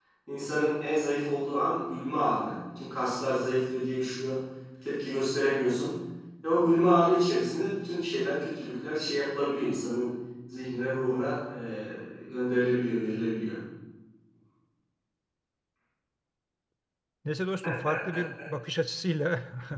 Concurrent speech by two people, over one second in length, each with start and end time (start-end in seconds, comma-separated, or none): none